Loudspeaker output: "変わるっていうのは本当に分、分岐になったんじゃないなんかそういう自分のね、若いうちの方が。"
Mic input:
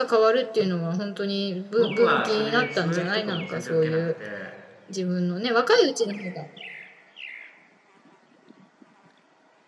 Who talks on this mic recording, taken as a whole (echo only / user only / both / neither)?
both